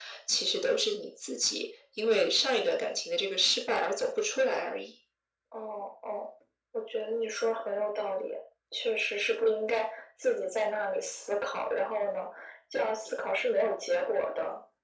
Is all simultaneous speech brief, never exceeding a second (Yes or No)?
Yes